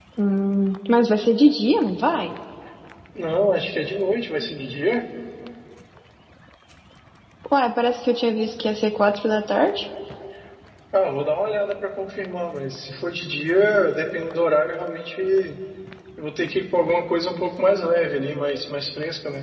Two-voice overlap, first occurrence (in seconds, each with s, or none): none